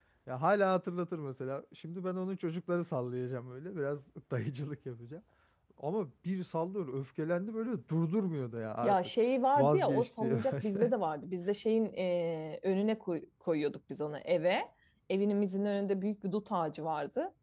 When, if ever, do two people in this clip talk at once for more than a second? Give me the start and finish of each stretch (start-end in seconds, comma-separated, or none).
9.6-10.9